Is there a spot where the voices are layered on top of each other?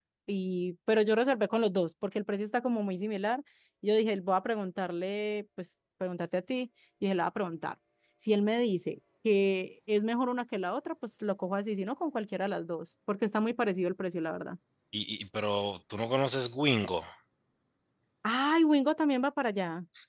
No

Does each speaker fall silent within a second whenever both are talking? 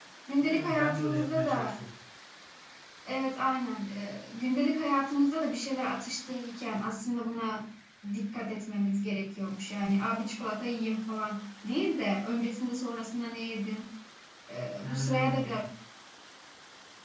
No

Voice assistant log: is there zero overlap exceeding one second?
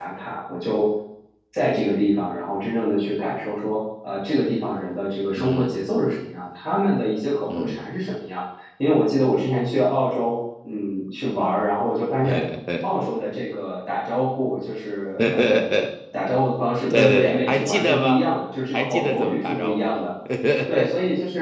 No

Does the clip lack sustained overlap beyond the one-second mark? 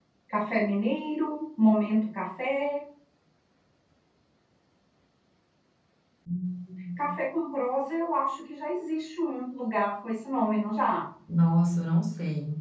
Yes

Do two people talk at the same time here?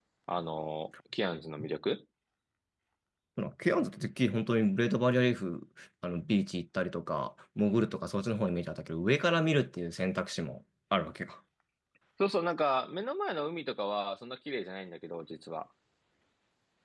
No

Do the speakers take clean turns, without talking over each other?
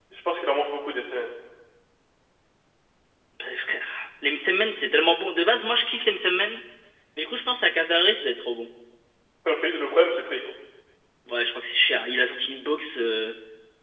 Yes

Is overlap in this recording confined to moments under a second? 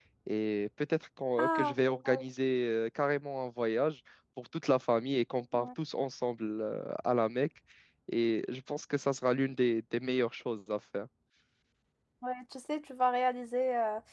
Yes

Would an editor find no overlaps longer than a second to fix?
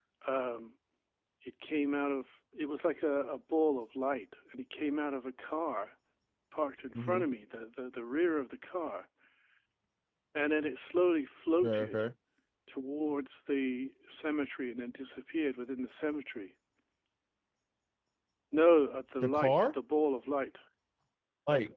Yes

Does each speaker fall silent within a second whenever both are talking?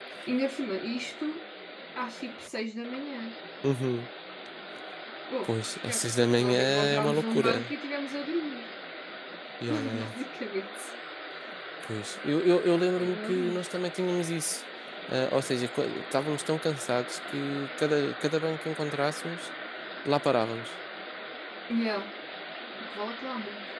No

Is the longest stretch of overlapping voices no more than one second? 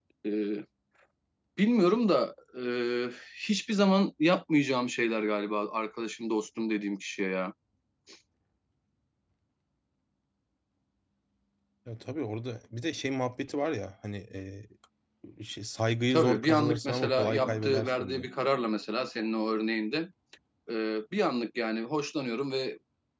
No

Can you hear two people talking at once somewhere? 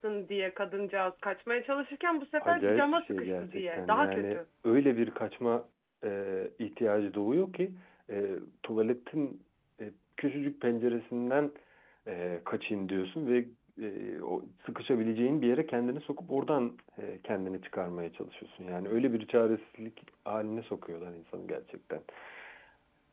Yes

